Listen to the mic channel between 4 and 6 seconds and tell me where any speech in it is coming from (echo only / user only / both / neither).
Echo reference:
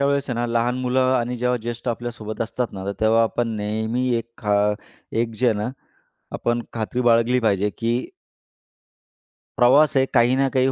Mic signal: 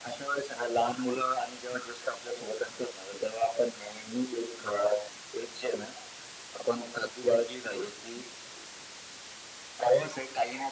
echo only